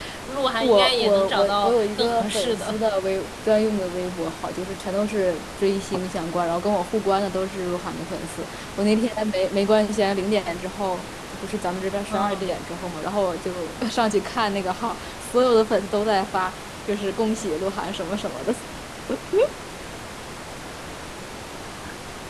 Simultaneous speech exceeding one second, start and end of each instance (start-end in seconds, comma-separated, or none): 0.6-2.8